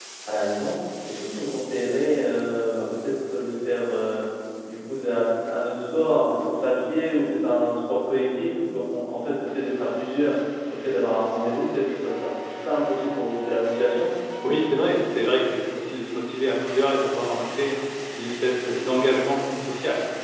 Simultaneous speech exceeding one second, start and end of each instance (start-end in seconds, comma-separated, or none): none